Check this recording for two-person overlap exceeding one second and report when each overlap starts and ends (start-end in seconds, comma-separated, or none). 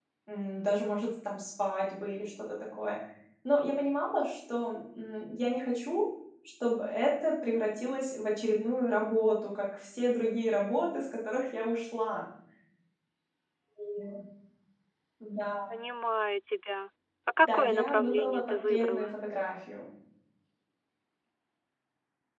17.4-19.1